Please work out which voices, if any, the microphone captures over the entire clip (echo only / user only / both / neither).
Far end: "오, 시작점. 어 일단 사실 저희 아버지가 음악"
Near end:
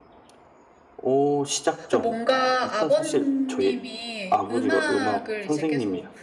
both